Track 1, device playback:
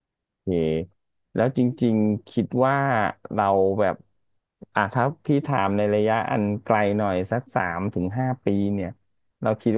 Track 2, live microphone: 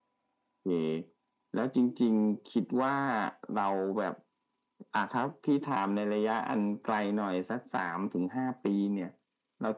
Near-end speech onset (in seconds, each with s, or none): none